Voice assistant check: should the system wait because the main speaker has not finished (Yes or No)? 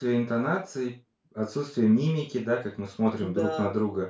Yes